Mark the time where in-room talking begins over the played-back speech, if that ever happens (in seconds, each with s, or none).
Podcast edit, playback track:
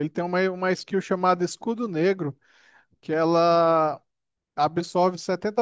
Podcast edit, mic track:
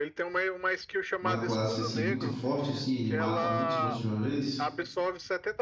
1.2 s